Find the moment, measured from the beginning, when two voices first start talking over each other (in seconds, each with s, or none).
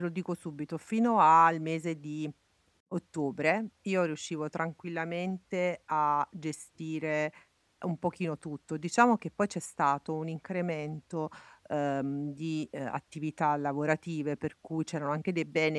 none